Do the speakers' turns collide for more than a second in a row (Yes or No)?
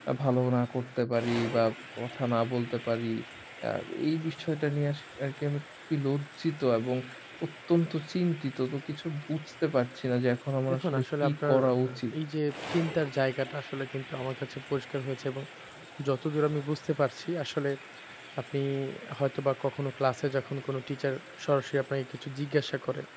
Yes